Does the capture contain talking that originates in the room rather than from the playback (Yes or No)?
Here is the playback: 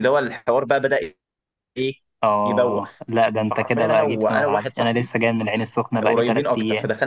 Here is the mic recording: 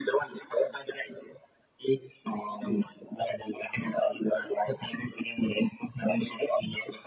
No